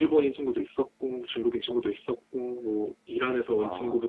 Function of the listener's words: listening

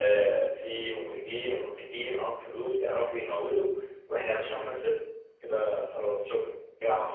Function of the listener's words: taking over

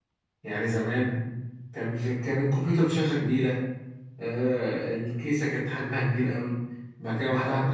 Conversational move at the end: listening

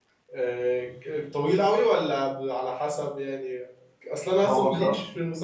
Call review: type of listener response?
listening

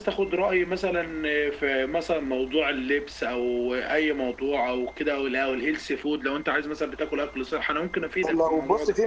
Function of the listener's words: taking over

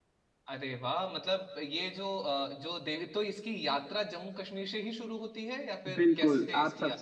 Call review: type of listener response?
taking over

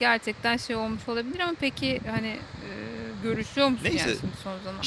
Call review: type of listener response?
taking over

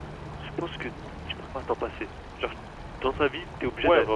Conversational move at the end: taking over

